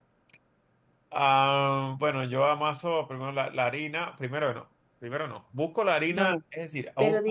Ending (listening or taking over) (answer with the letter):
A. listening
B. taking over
B